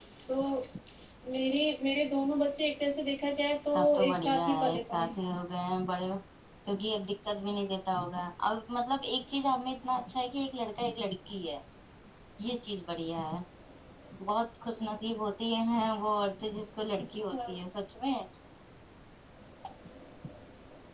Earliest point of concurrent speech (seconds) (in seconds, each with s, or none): 3.7 s